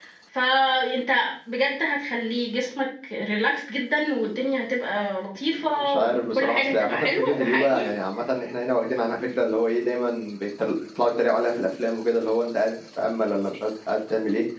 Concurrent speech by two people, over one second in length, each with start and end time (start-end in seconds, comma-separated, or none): 5.6-7.8